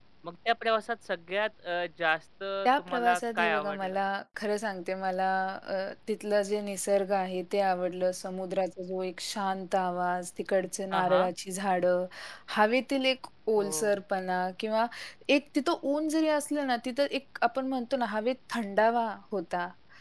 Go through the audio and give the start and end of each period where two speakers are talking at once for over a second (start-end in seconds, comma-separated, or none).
2.6-4.0